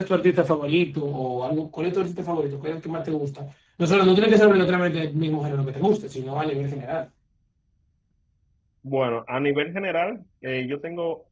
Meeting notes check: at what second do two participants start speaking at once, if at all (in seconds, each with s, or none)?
none